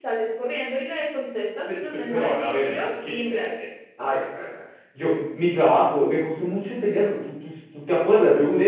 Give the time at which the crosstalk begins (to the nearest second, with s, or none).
2 s